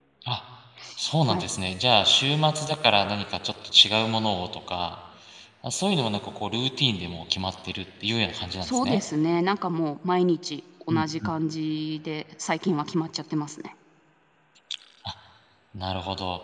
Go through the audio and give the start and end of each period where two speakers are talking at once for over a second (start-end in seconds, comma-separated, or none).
none